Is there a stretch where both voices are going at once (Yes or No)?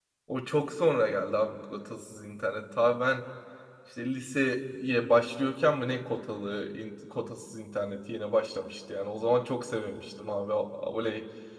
No